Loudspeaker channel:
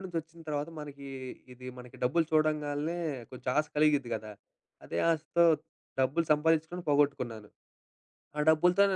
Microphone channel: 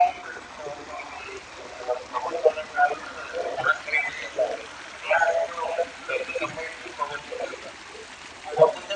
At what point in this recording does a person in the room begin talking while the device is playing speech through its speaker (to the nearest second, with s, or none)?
none